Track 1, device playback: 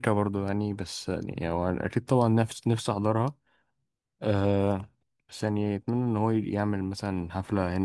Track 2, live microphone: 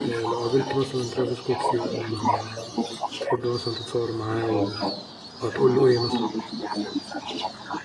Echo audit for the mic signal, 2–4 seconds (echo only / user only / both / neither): both